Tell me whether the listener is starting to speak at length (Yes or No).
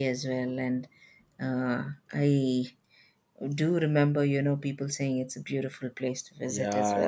Yes